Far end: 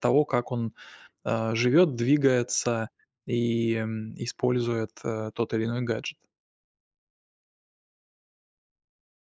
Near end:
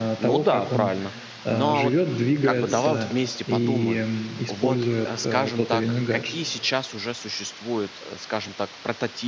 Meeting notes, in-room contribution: present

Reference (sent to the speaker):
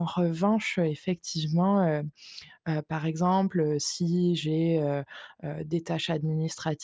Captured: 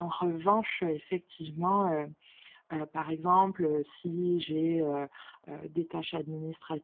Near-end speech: none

